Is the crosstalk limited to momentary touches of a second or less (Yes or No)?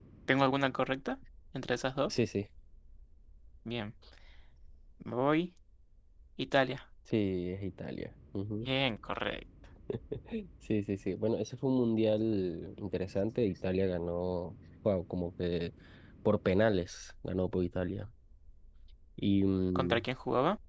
Yes